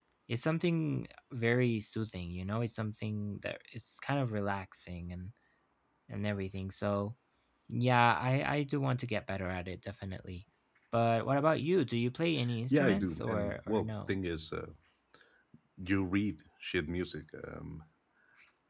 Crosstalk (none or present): present